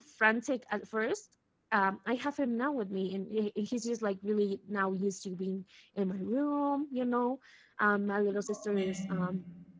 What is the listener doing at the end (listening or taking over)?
listening